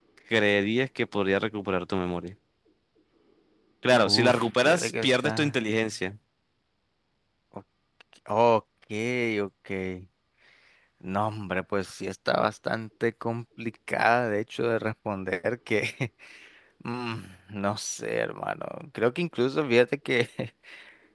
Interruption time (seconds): 4.1 s

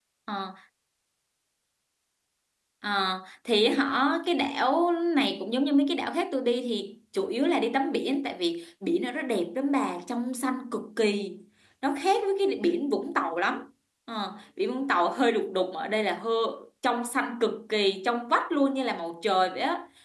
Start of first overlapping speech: none

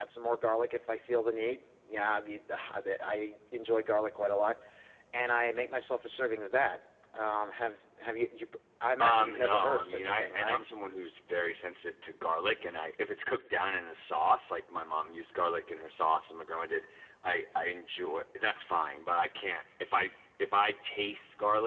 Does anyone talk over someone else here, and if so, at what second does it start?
9.0 s

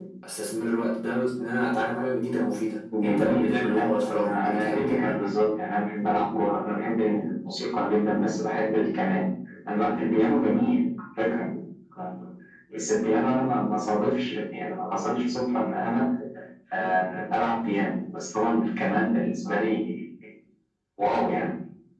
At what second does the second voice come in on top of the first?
2.9 s

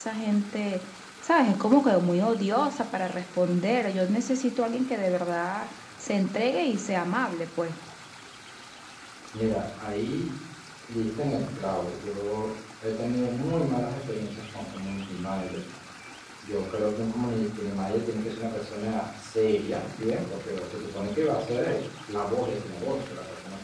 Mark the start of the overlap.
none

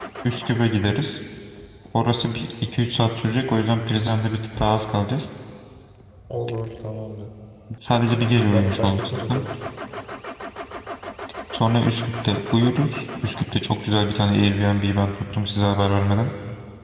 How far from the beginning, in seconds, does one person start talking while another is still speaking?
8.1 s

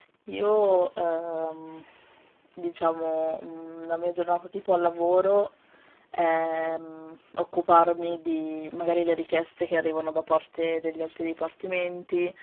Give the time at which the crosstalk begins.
none

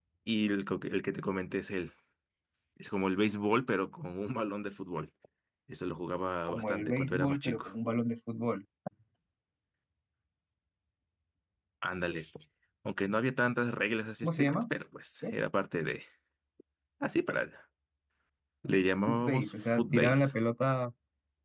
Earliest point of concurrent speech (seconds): 6.5 s

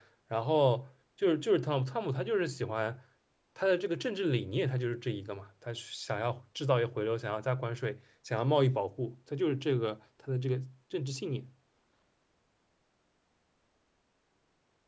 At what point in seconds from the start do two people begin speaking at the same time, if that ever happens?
none

